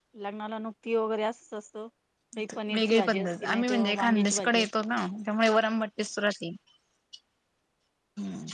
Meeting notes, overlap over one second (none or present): present